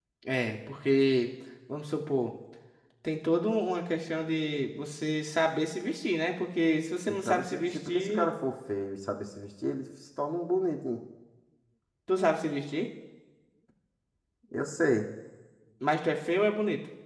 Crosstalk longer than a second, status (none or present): present